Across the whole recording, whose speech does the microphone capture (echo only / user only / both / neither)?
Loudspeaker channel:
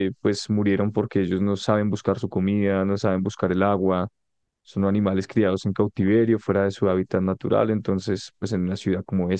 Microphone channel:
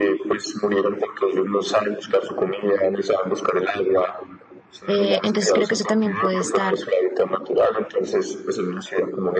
both